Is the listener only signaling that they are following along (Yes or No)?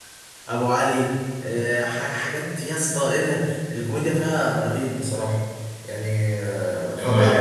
No